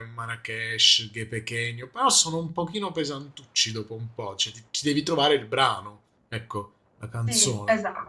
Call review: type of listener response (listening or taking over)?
taking over